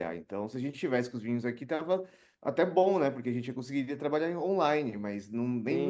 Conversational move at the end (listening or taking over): taking over